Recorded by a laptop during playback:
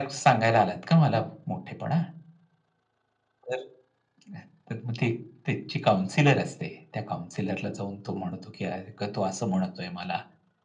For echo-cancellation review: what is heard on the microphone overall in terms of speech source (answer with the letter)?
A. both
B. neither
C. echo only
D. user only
C